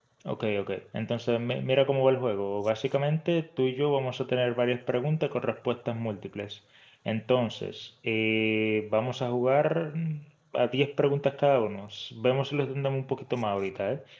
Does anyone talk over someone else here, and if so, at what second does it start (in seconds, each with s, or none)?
none